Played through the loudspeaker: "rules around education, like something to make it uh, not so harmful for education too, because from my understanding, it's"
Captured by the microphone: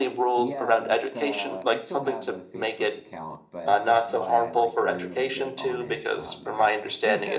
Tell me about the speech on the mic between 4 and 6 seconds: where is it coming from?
both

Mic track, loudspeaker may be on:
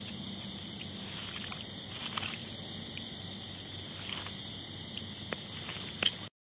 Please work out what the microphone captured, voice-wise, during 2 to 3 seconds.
neither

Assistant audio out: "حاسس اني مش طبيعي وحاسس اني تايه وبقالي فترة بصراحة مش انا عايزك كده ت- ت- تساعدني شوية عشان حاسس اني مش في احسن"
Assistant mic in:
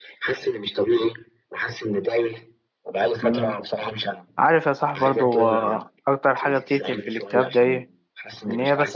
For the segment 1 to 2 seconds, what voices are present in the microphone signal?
echo only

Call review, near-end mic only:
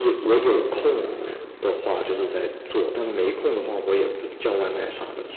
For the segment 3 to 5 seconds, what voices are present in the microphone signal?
echo only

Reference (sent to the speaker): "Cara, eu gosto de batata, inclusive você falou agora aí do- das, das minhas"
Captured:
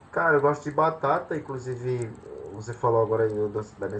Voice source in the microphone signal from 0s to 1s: echo only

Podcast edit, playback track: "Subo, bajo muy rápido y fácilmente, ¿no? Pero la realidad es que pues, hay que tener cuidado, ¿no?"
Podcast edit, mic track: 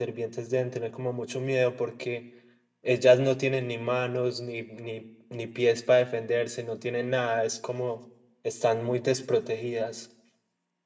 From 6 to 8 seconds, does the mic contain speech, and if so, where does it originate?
user only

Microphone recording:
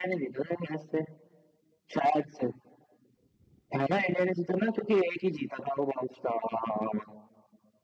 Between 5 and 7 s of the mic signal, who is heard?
echo only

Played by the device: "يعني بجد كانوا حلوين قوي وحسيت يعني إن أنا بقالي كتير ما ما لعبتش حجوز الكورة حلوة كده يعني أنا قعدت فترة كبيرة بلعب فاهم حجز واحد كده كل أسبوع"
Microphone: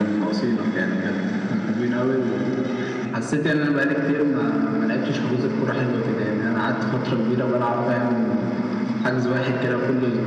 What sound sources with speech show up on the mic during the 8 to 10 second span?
echo only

